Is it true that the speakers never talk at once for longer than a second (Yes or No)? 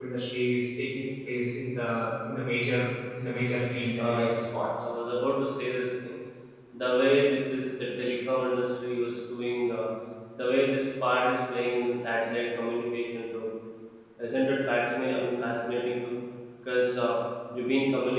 Yes